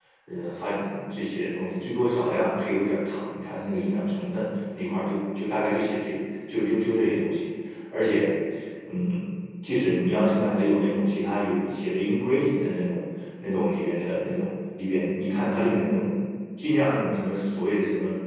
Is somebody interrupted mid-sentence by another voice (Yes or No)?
No